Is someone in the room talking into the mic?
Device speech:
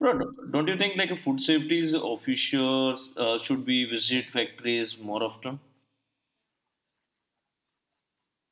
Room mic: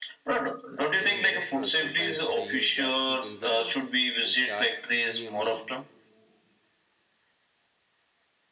Yes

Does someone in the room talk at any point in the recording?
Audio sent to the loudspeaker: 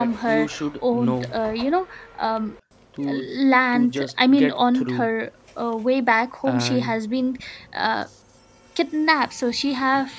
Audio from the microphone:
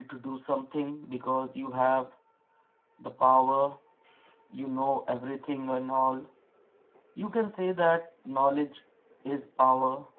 Yes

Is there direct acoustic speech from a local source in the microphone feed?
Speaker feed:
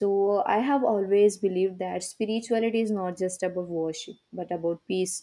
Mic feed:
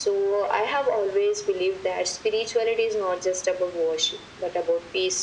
No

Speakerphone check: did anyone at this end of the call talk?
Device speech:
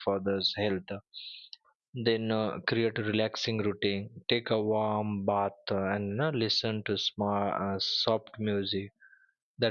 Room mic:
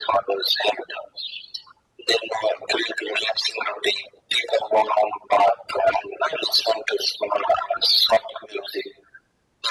No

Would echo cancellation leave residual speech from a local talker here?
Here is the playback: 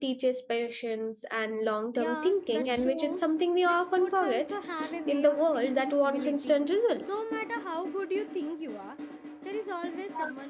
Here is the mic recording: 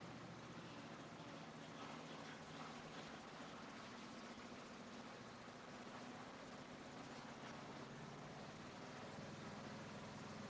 No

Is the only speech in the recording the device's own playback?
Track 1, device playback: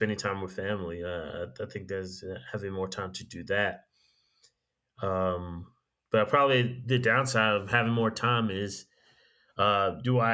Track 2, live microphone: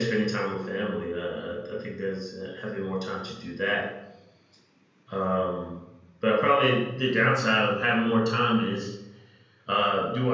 Yes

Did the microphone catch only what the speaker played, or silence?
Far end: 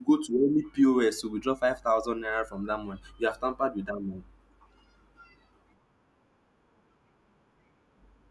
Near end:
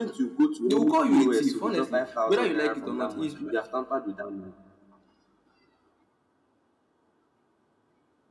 No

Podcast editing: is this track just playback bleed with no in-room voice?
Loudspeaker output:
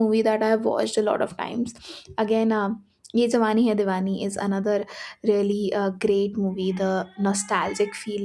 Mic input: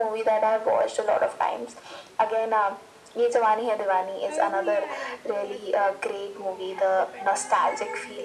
No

